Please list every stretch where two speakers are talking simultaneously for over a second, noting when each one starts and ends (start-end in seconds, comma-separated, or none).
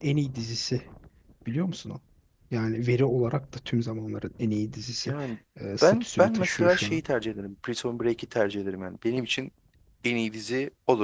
5.8-7.0